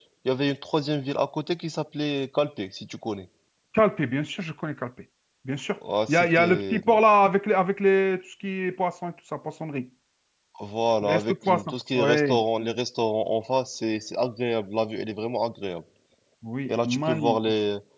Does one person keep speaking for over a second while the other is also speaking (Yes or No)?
Yes